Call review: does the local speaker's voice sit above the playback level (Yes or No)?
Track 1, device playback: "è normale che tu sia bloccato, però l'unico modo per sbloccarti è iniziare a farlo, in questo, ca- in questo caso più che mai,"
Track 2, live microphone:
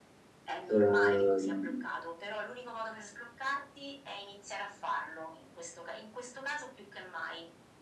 Yes